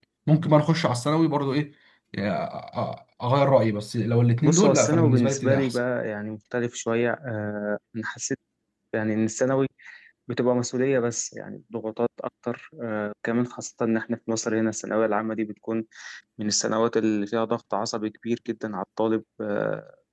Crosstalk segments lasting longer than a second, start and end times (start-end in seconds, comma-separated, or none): 4.4-5.8